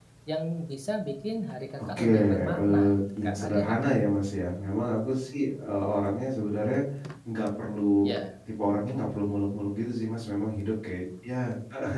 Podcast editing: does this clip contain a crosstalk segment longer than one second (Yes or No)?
Yes